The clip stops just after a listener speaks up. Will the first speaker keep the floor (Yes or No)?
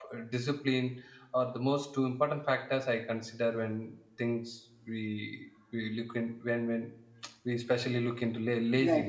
Yes